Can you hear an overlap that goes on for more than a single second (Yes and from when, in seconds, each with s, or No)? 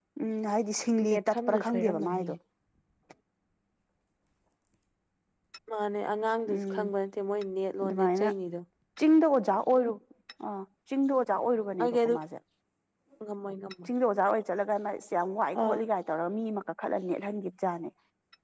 Yes, from 1.1 s